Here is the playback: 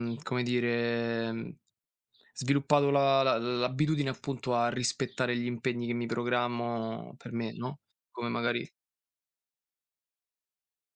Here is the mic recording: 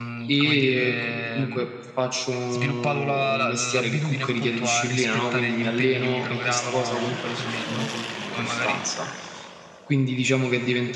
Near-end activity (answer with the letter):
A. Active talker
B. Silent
A